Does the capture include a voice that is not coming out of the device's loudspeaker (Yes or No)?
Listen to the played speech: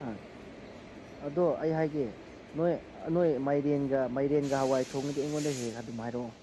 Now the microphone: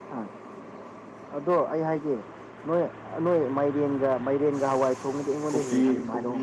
Yes